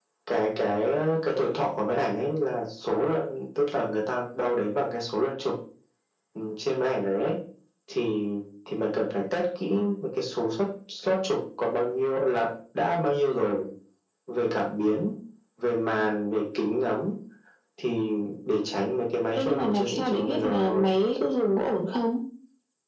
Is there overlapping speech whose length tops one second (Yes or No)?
Yes